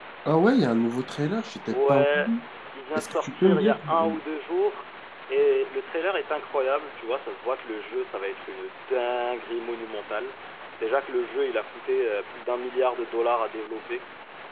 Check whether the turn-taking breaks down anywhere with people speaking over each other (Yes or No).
Yes